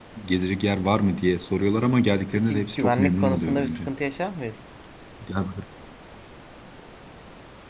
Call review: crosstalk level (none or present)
present